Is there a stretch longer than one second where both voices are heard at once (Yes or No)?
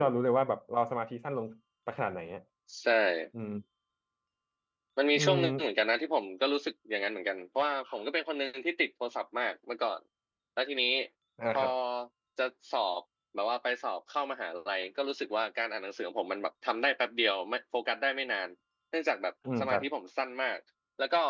No